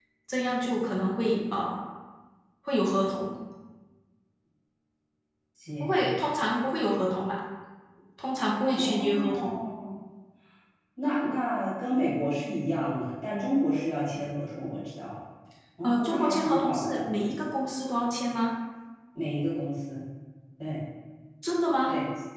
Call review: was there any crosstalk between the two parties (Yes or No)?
Yes